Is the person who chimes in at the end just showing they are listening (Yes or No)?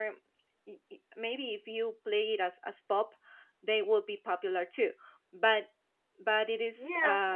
Yes